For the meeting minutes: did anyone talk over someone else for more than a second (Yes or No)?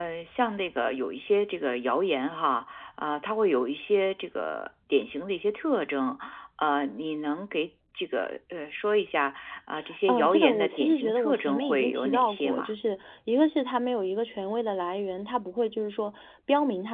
Yes